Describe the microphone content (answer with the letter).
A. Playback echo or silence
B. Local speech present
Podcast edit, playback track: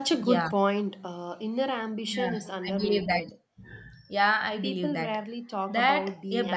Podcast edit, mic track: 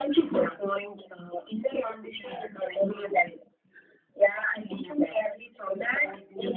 A